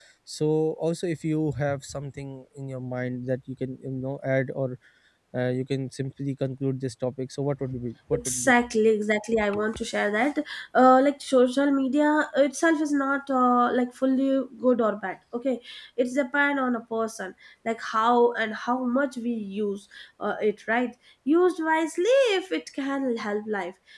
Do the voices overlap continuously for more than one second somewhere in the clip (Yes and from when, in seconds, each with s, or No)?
No